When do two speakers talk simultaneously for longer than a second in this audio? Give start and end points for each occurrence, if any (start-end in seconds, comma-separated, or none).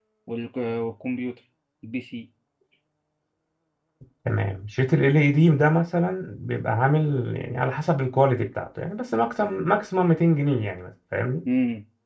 none